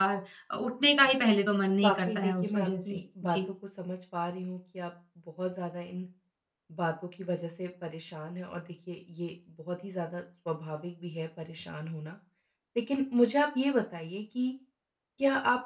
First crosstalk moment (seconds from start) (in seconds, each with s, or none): 1.8 s